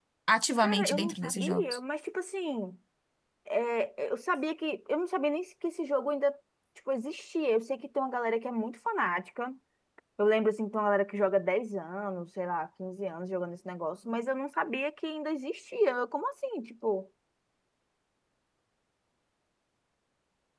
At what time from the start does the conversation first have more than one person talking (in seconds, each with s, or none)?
0.6 s